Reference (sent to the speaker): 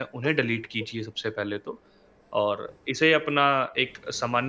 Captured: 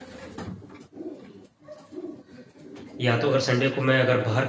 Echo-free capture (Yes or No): Yes